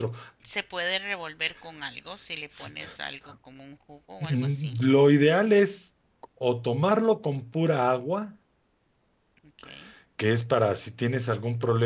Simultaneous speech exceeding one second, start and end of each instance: none

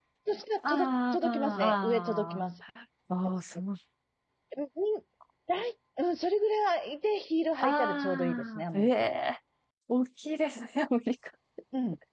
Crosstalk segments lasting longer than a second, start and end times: 0.7-2.4, 7.6-9.1

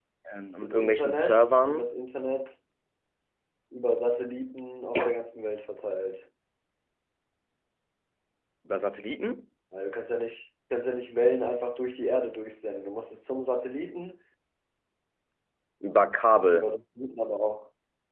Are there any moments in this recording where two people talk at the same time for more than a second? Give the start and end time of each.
0.6-1.9

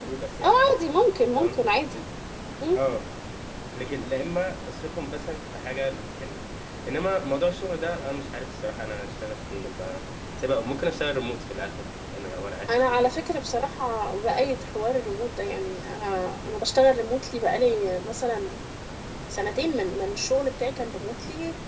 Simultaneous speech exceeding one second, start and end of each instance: none

